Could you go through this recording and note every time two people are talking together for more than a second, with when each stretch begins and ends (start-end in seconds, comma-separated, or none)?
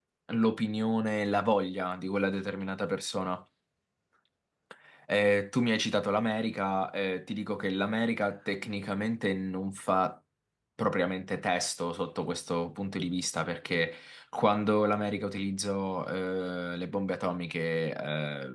none